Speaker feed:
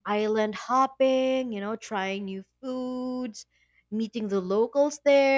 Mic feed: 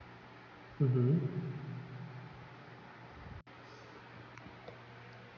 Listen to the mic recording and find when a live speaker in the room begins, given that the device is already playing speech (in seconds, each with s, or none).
0.8 s